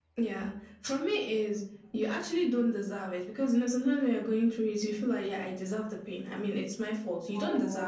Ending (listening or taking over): listening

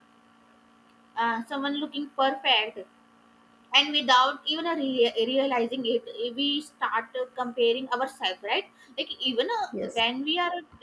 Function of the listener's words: listening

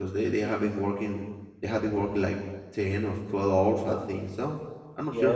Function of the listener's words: taking over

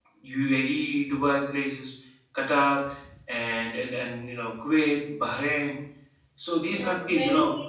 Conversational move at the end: taking over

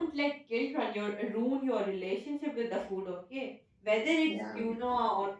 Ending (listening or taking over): listening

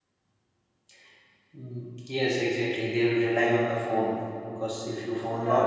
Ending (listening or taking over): listening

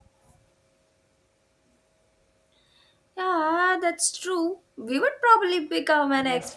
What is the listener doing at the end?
taking over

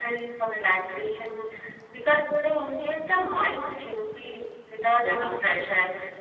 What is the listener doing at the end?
listening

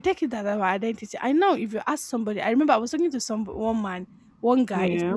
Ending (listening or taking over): listening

